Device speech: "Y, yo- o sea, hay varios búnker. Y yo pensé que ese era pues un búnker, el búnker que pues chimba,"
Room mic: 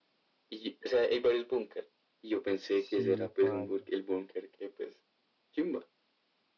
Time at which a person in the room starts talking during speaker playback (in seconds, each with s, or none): 2.7 s